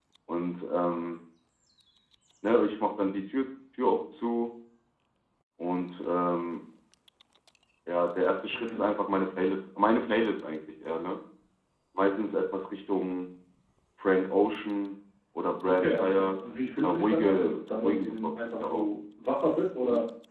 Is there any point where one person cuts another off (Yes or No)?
Yes